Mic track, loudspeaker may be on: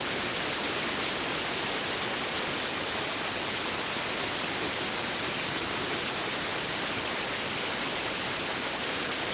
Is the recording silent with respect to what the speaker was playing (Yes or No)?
Yes